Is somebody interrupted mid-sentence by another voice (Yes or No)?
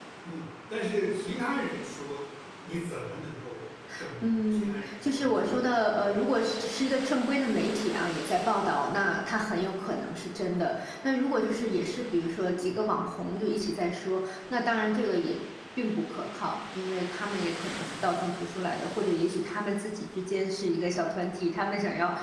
Yes